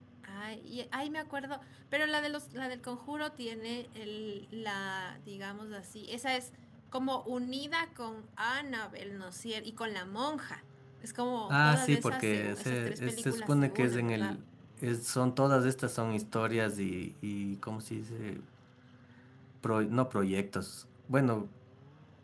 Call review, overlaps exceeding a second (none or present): present